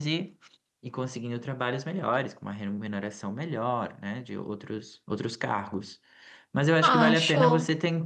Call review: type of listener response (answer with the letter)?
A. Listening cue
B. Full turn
A